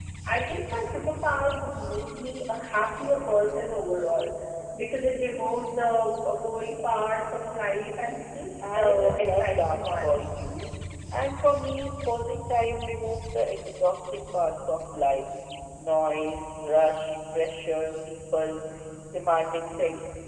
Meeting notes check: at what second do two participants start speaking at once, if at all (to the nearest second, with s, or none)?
9 s